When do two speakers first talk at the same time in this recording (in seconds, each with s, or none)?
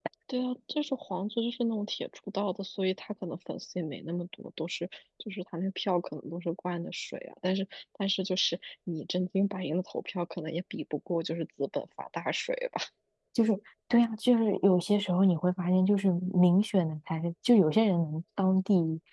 none